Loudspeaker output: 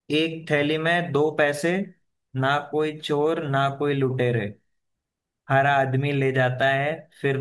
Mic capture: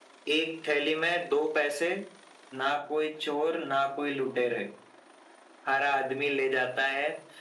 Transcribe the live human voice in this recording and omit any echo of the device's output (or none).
none